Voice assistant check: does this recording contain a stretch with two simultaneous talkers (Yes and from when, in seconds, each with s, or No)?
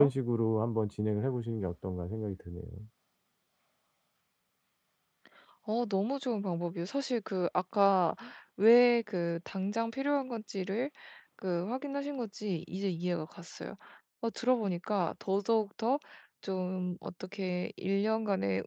No